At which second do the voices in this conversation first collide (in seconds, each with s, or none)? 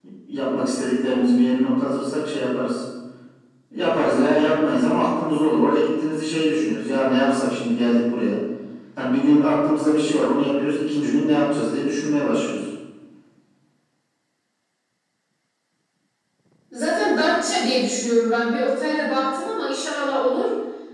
none